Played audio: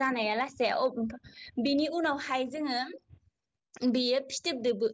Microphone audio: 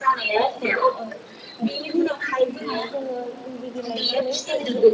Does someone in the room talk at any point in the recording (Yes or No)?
Yes